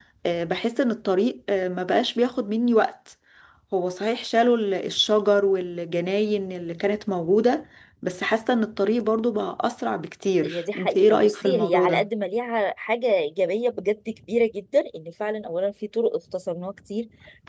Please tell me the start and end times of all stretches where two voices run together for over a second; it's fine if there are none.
10.4-12.1

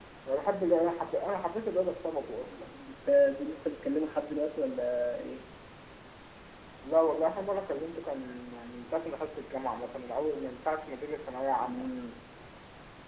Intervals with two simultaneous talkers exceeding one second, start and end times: none

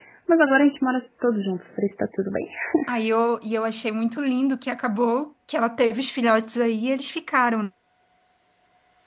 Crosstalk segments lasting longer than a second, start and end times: none

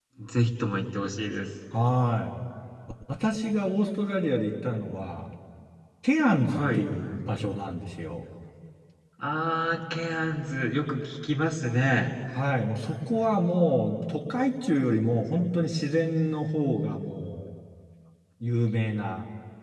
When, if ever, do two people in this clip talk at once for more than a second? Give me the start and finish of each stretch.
none

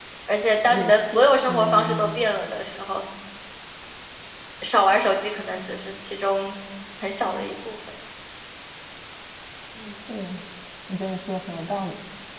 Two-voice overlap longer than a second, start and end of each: 0.7-2.2

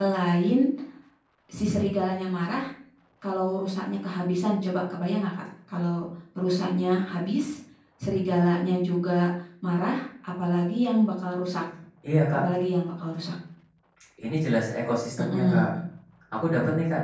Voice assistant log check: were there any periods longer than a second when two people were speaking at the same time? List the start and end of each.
none

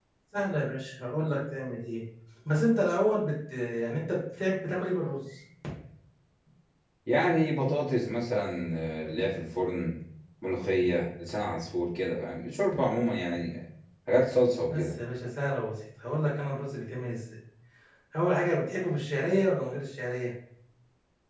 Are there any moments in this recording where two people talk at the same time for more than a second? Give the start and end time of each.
none

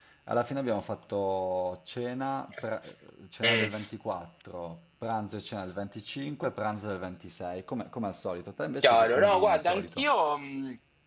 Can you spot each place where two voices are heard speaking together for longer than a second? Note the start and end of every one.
8.8-10.1

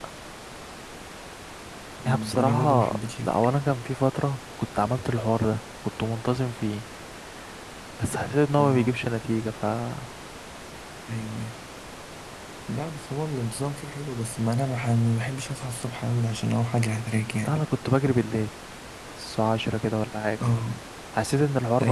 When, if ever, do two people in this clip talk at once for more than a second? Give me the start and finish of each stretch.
2.0-3.3

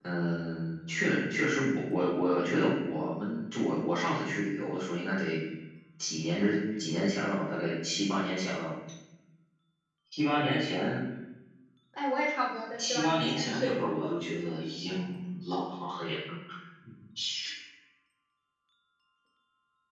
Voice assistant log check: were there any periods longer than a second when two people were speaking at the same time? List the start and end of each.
12.8-14.1

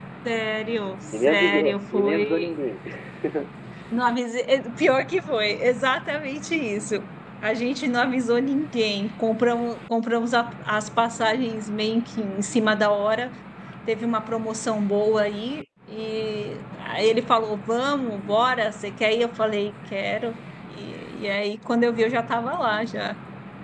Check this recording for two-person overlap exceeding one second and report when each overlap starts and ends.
1.1-2.5

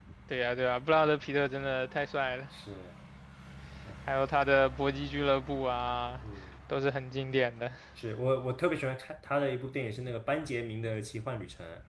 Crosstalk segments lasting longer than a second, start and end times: none

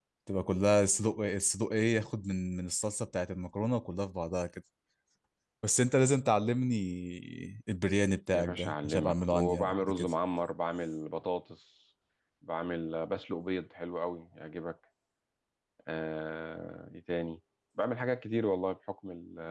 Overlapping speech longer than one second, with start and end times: 8.3-10.1

